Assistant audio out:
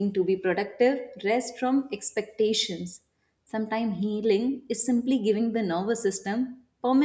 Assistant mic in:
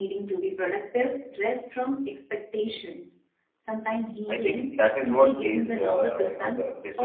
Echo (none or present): present